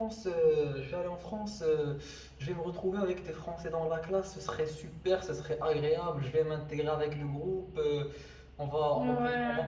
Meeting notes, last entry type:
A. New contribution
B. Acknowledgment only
B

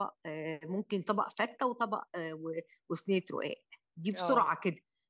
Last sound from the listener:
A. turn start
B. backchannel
B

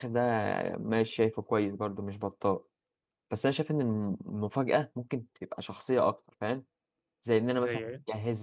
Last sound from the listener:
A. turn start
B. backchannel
B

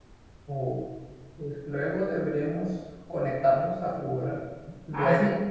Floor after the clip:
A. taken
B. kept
A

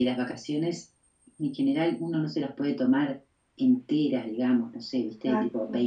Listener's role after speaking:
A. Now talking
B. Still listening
B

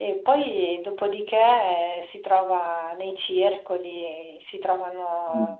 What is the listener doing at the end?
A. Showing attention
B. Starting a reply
A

